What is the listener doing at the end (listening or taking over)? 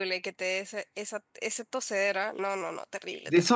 taking over